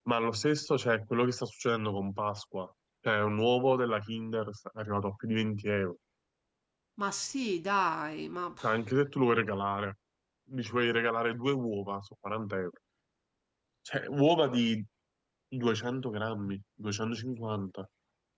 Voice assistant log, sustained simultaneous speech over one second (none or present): none